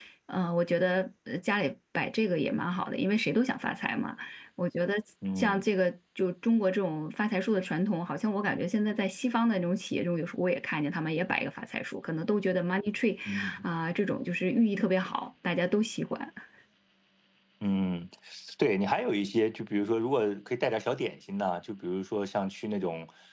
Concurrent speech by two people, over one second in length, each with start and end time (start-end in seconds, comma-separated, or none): none